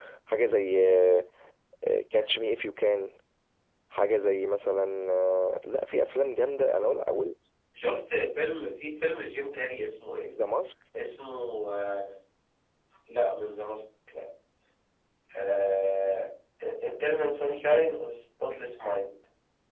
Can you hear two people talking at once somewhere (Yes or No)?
No